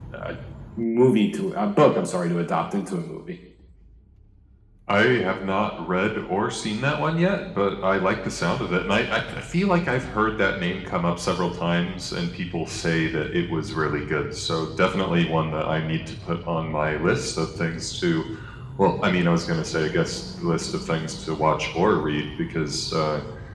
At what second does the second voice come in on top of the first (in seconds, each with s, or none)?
none